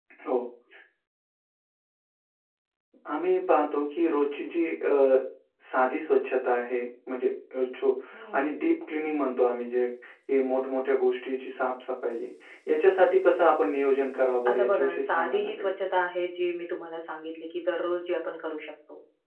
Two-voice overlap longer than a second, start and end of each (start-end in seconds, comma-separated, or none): 14.5-15.7